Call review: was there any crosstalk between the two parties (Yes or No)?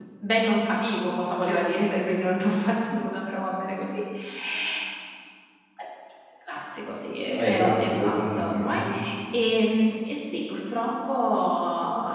Yes